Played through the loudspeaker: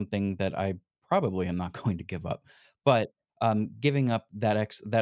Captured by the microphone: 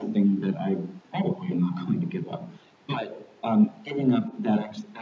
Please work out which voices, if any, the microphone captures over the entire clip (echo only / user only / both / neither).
echo only